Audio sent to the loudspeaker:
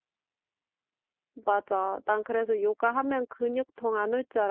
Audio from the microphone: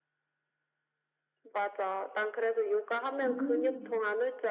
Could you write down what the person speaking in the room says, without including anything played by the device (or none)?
음.